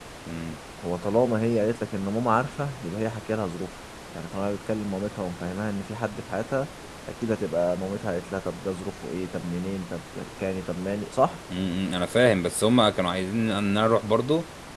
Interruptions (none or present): none